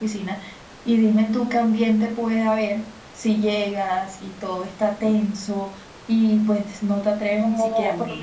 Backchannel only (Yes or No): No